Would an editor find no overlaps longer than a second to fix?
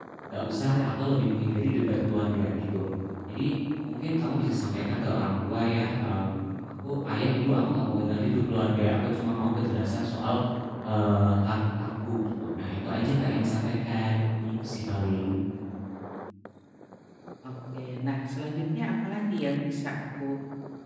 Yes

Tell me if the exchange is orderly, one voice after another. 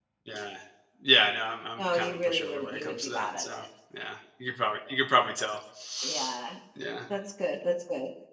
No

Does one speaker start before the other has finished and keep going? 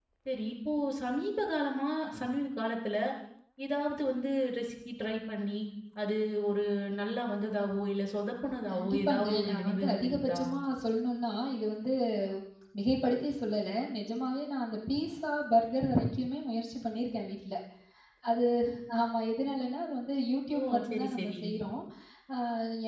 Yes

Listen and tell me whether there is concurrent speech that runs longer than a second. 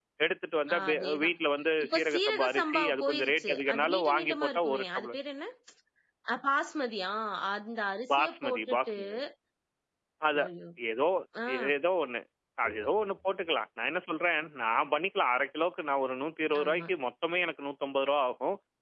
Yes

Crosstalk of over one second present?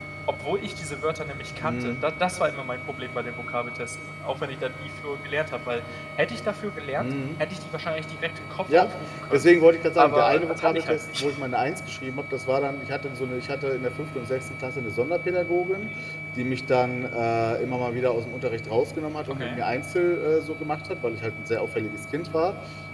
Yes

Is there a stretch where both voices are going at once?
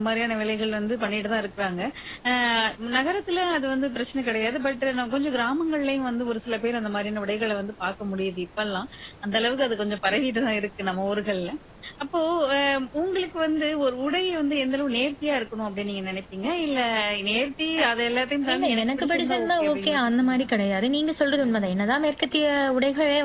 Yes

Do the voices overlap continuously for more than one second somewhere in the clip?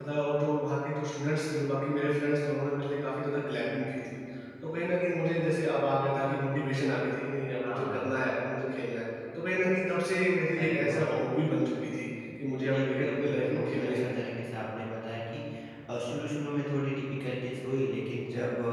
Yes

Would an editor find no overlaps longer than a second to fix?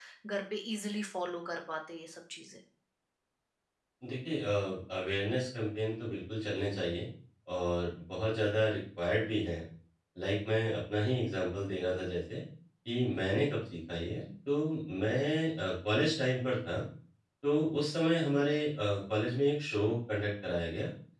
Yes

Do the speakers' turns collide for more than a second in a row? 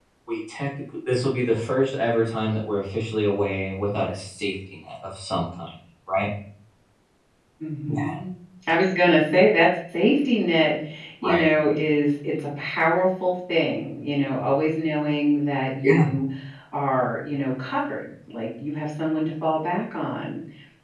No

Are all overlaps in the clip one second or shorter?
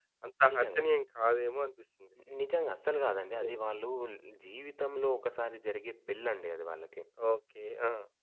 Yes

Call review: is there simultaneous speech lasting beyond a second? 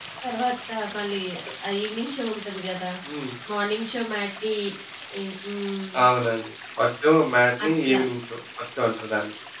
No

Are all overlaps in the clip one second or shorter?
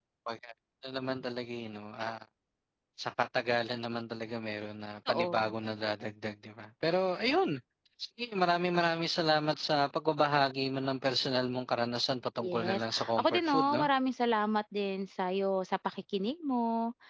No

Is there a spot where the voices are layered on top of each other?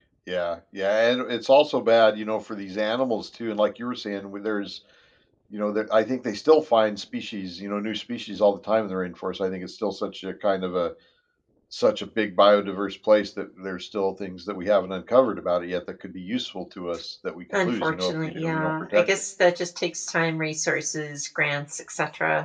Yes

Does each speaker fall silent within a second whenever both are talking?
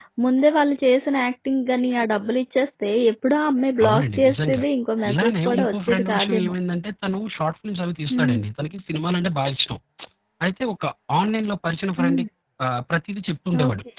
No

